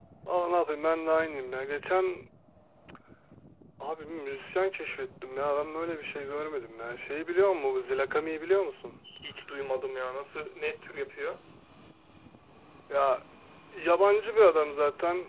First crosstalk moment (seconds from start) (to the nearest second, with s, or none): none